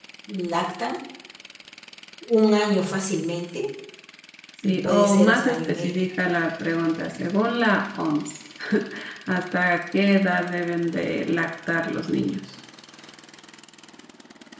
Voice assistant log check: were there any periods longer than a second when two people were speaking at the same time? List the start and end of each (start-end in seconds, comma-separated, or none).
4.6-6.0